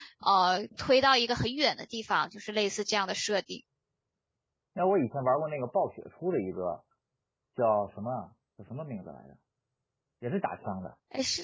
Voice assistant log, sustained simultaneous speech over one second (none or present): none